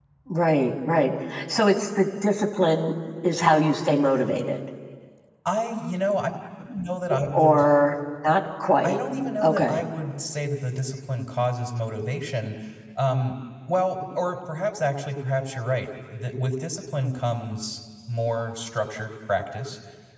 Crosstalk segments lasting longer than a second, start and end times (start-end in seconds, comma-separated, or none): none